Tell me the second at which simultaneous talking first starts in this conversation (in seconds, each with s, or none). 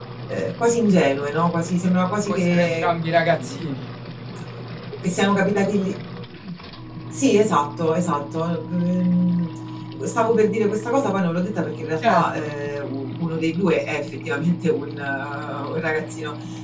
2.3 s